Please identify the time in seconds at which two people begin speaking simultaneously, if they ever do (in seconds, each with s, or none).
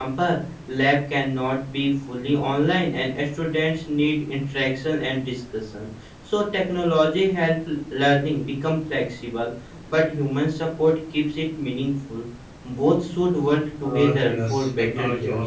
13.8 s